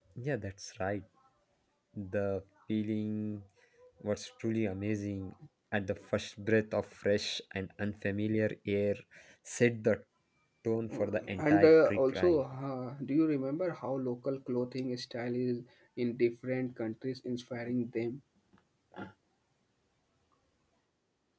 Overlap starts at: 11 s

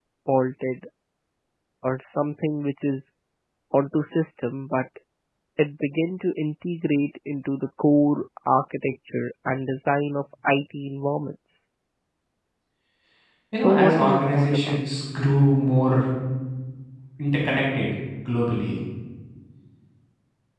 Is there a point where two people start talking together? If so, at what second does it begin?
14 s

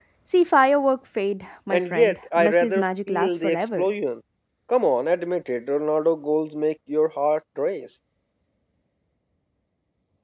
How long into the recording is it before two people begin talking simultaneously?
2 s

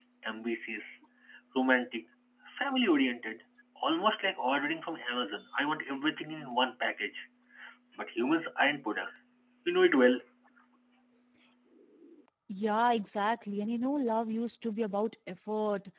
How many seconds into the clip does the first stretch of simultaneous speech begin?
none

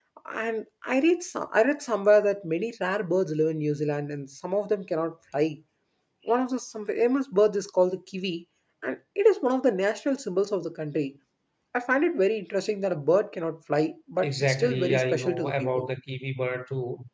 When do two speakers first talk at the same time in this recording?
14 s

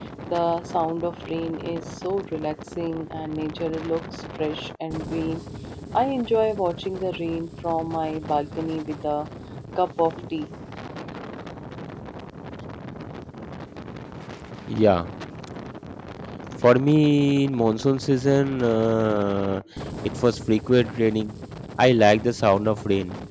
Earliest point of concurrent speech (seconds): none

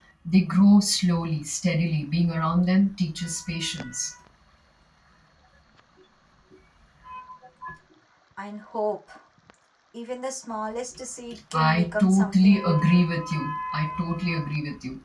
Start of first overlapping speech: 12 s

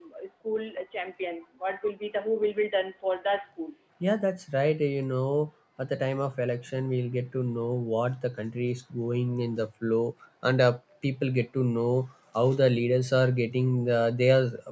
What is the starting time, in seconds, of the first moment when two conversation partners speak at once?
none

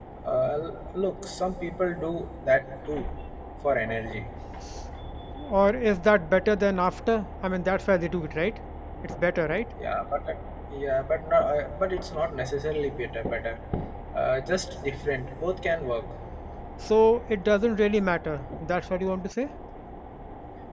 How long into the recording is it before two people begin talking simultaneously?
none

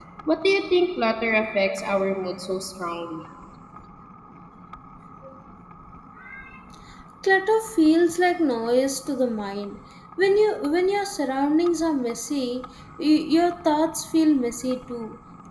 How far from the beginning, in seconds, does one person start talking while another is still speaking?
none

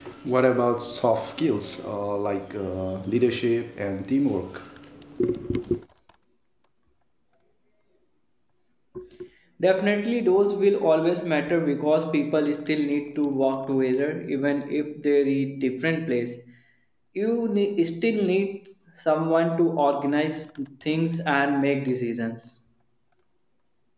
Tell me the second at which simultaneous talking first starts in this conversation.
none

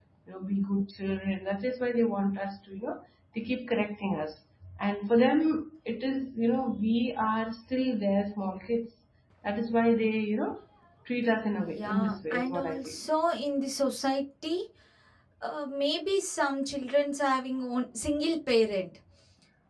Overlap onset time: 12 s

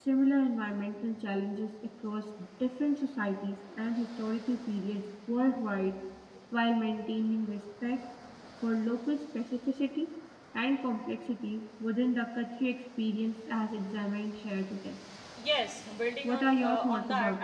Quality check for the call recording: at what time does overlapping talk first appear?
16 s

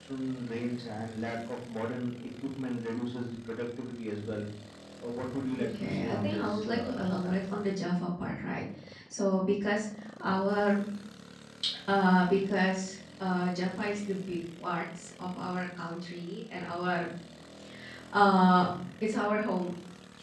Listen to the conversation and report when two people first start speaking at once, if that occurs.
6 s

